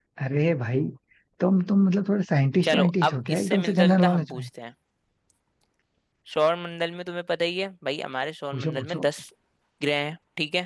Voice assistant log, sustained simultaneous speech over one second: present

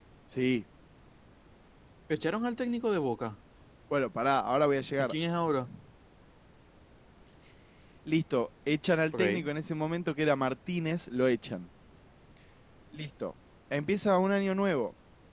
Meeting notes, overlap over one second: none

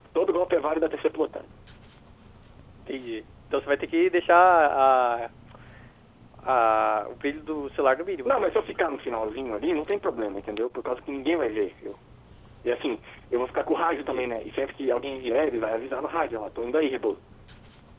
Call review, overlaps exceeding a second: none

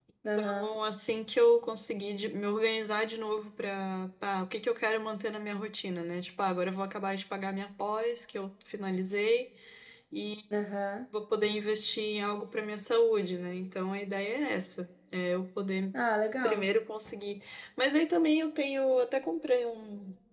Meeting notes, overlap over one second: none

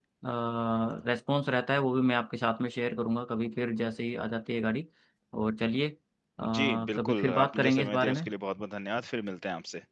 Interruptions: present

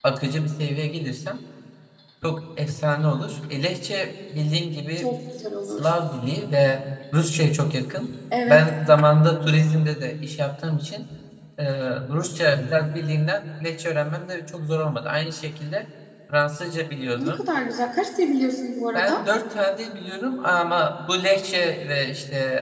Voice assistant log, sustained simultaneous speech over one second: none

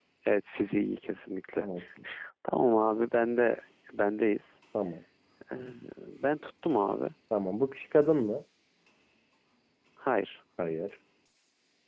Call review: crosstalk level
none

